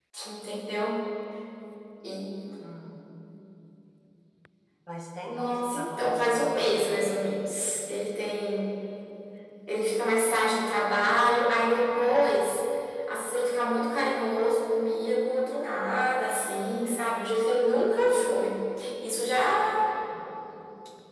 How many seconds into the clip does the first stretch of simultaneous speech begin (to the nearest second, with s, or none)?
5 s